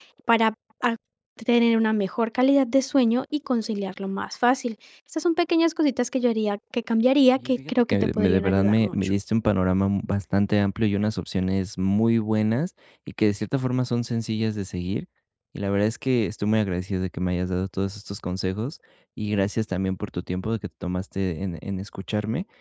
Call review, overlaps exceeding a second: present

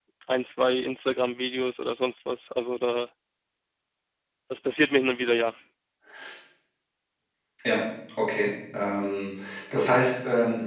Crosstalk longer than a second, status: none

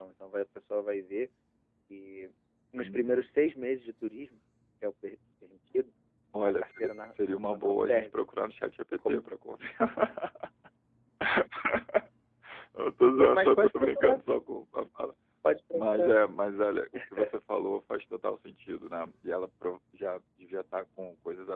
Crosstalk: present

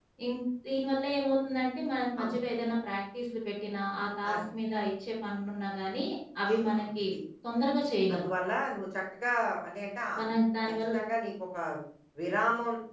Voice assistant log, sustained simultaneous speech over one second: none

